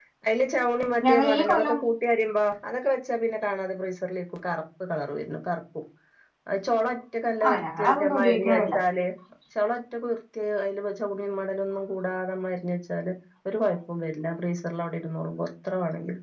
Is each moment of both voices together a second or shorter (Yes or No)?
No